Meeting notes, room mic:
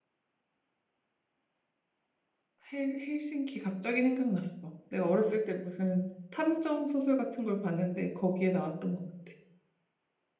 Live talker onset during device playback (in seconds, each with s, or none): 2.7 s